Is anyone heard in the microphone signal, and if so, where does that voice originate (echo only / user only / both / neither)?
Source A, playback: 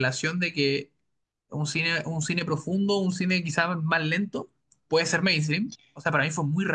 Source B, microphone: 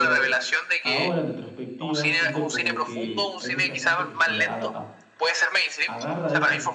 both